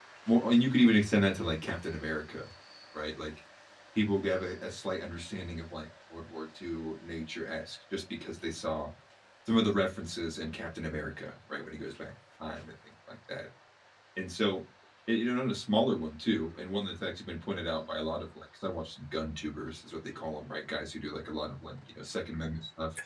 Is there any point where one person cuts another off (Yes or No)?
No